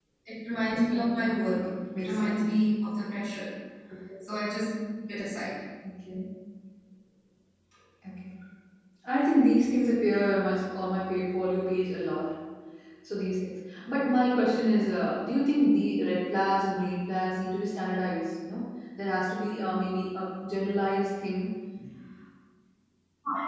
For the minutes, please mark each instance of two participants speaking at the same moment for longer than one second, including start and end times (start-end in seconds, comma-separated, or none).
0.9-2.5